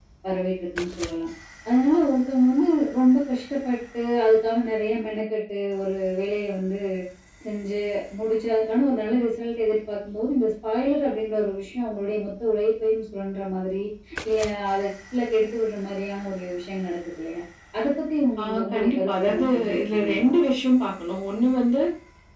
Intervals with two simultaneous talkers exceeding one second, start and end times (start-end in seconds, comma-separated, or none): 18.4-20.3